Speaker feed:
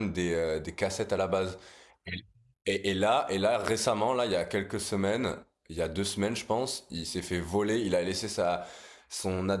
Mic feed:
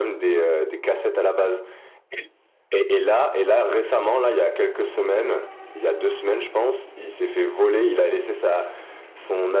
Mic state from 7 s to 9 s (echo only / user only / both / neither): echo only